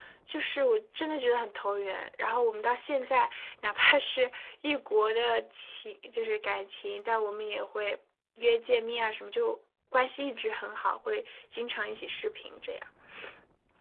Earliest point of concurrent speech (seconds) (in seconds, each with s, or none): none